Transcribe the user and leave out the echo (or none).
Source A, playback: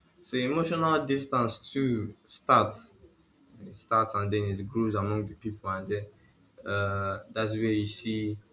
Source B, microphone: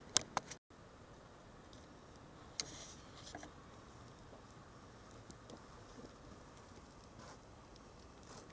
none